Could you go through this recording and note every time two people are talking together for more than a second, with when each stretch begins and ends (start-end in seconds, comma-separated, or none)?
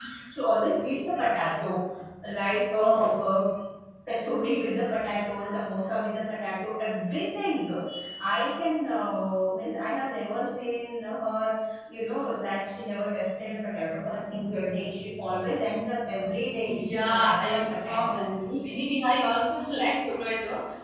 16.7-18.1